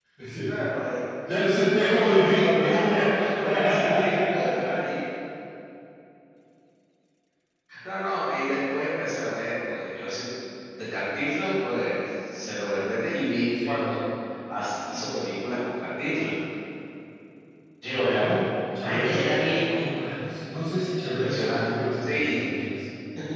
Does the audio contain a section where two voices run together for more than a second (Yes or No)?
Yes